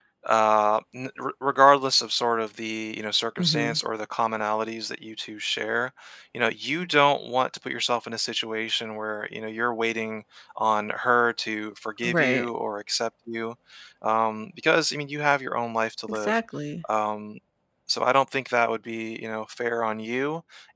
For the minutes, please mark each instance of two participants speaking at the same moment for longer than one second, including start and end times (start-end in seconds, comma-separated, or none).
none